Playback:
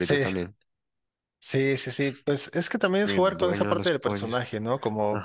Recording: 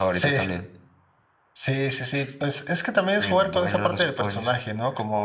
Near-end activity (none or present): none